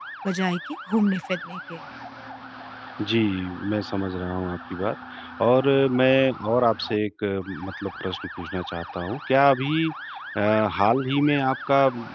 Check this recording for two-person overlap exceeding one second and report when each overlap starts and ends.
none

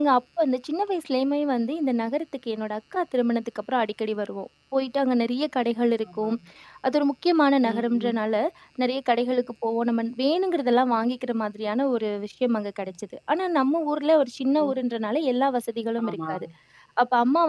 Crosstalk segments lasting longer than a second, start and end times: none

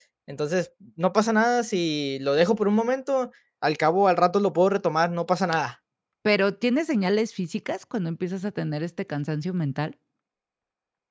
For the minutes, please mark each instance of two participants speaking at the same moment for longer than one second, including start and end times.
none

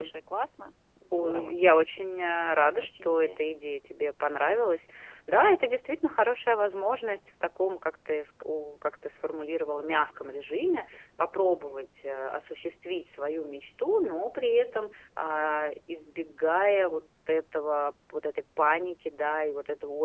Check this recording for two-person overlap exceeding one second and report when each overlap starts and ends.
2.2-3.4

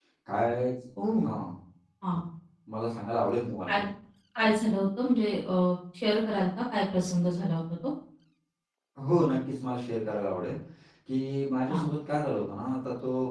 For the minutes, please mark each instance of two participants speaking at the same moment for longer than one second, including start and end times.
none

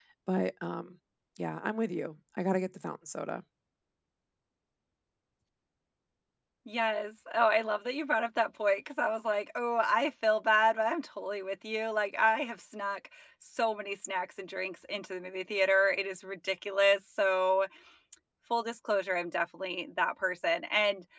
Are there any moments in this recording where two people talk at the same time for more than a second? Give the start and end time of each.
none

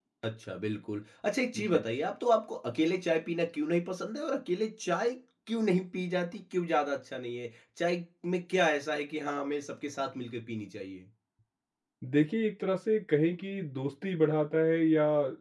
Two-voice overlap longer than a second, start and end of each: none

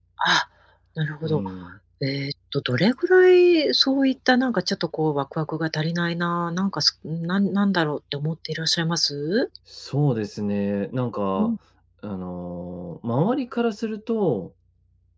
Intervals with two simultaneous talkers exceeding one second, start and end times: none

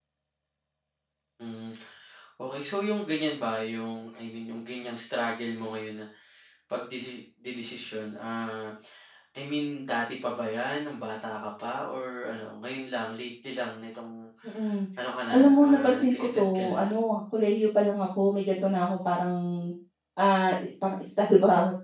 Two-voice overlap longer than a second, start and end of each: 15.3-16.8

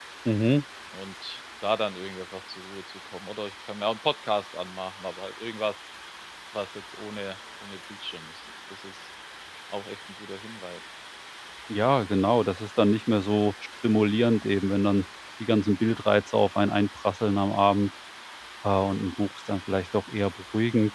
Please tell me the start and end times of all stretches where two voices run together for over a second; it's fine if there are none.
none

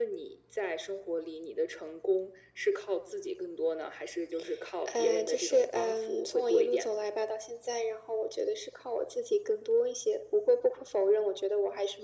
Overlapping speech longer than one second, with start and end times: 4.9-7.0

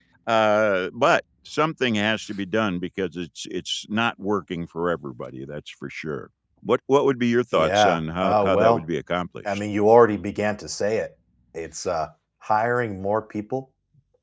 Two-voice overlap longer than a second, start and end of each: 7.5-8.8

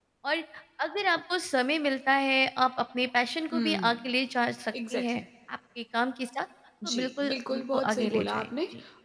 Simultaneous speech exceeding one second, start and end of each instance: 6.9-8.4

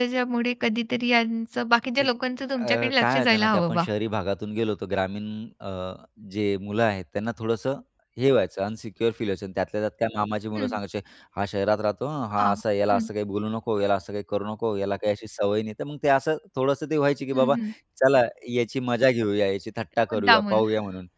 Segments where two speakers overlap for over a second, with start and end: 2.6-3.8

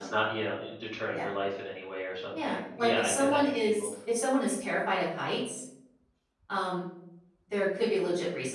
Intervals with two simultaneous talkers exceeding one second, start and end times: 2.4-3.9

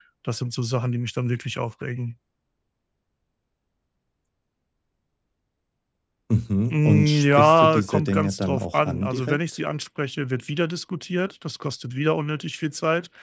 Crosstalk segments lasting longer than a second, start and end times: 6.7-9.4

